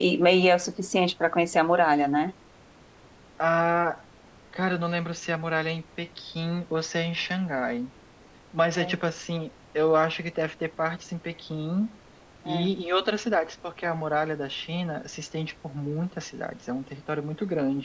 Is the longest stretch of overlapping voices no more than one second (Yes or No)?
Yes